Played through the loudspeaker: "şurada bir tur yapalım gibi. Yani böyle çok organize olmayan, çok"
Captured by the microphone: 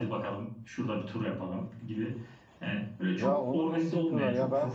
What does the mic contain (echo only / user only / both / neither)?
both